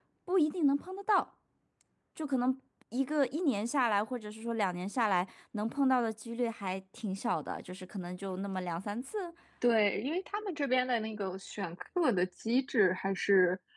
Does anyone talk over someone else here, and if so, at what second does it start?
none

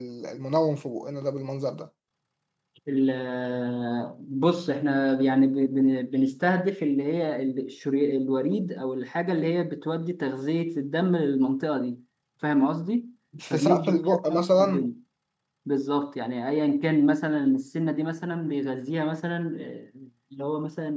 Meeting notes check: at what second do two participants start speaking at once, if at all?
13.5 s

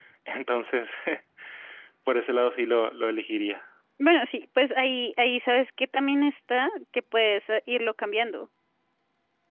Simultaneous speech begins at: none

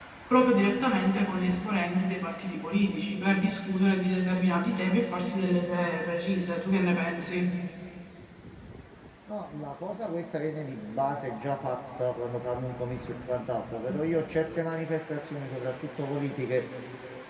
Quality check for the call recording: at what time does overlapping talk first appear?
none

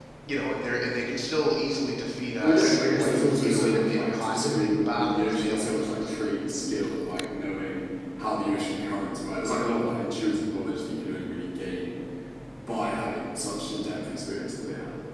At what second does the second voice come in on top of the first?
2.4 s

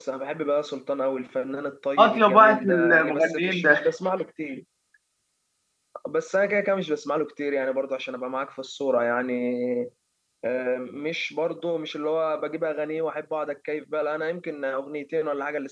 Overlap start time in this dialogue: 2.0 s

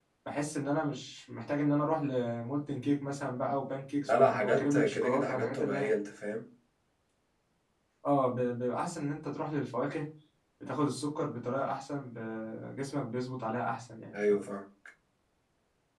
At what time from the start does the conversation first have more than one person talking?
4.0 s

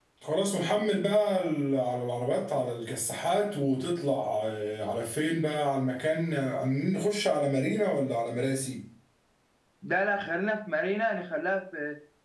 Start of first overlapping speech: none

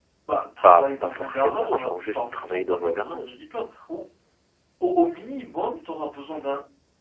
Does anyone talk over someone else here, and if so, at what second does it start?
0.6 s

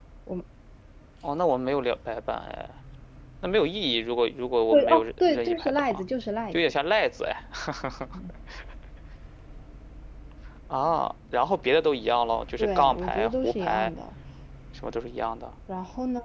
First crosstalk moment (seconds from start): 4.7 s

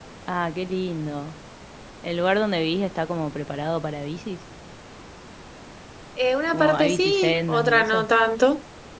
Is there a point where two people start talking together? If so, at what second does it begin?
6.5 s

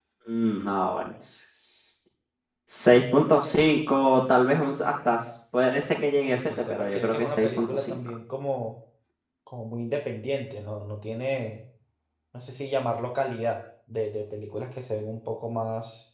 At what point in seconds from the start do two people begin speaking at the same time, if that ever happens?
6.2 s

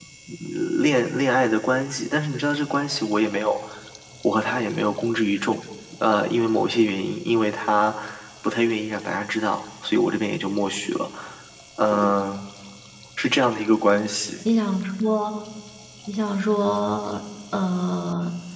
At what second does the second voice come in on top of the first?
none

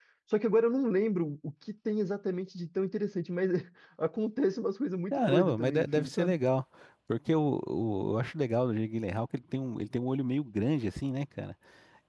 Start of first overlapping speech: 5.1 s

